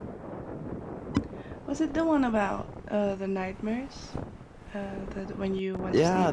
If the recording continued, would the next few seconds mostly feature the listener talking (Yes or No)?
Yes